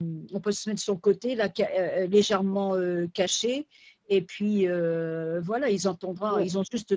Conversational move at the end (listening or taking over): listening